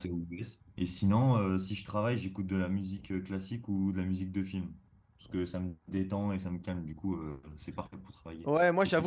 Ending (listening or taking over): taking over